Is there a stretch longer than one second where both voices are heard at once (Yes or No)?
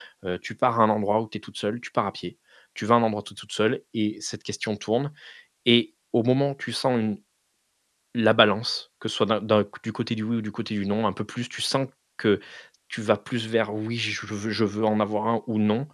No